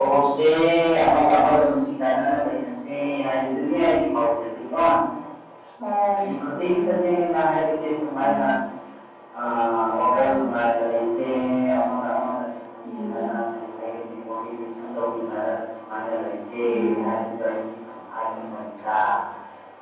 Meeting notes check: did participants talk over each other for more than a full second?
No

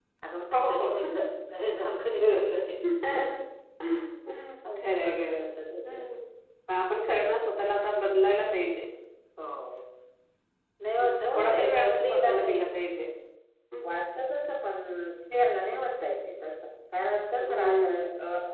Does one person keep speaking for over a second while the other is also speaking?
Yes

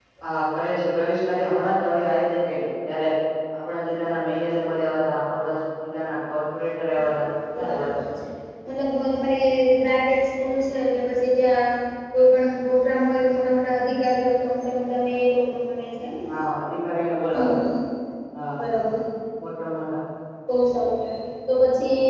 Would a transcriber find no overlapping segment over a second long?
Yes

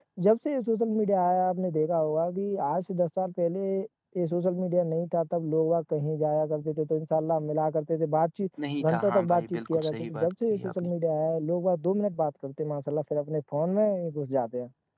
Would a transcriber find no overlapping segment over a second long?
No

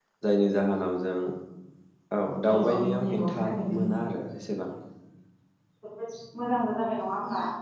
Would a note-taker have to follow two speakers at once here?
Yes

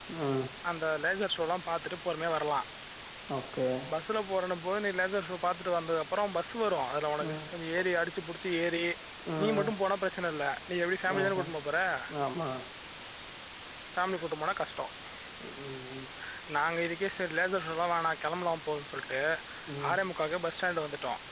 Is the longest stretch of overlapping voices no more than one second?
Yes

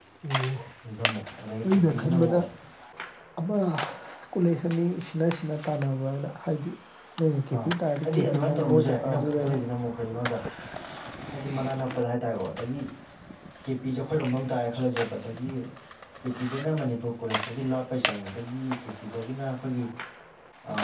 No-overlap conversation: No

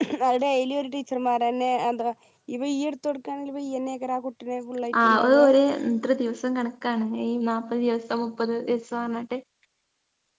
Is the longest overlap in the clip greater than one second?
No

